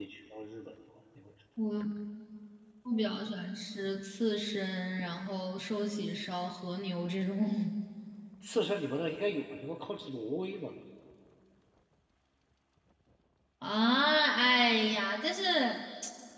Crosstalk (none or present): none